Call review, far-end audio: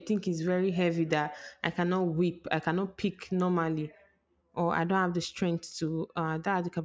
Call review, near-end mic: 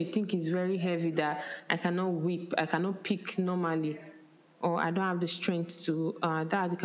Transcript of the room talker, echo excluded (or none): none